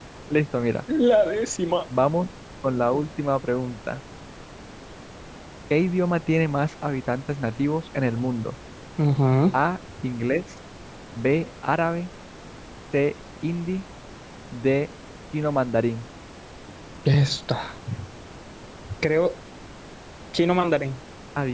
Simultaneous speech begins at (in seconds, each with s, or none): none